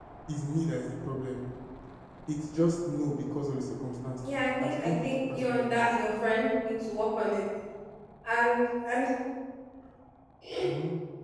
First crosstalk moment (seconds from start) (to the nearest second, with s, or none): 4 s